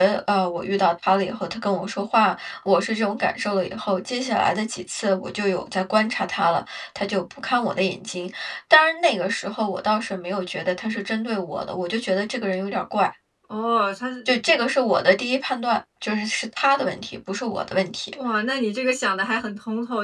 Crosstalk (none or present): none